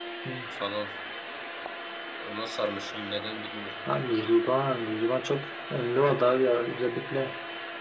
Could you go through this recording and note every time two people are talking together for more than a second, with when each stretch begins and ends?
none

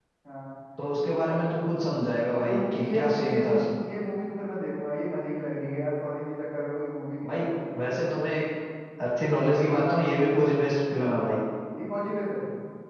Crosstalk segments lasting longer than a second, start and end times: 2.4-3.7

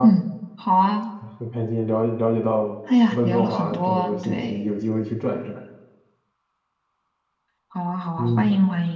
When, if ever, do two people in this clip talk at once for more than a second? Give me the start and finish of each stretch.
3.1-4.6

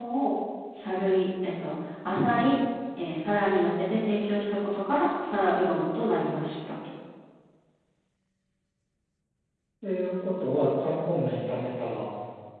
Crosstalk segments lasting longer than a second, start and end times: none

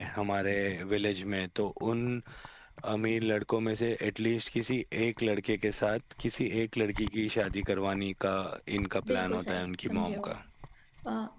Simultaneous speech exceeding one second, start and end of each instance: 9.1-10.4

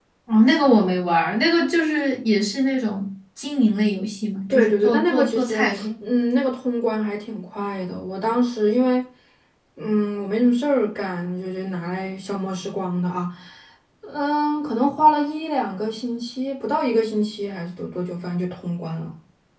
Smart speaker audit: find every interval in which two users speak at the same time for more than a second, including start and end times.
4.5-5.8

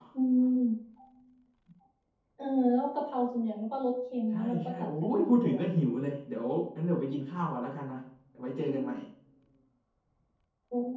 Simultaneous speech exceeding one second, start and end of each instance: 4.3-5.6

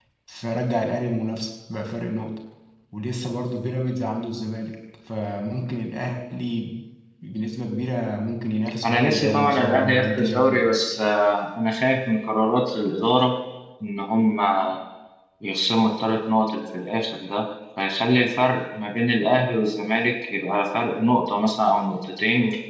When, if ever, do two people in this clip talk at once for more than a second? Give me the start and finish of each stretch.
8.8-10.7

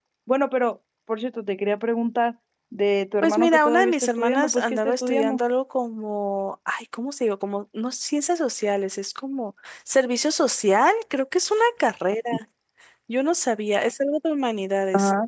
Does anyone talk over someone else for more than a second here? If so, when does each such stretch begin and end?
3.2-5.4

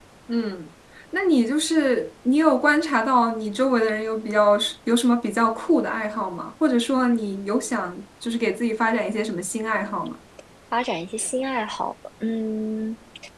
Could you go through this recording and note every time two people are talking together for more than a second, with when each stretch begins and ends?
none

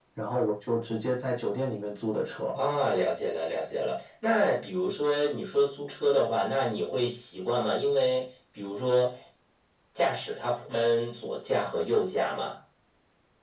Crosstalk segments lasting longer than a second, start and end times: none

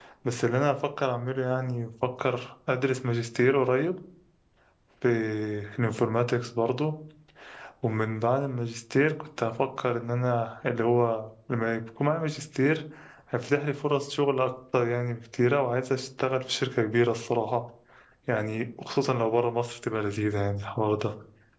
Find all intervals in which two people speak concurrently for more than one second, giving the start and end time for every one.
none

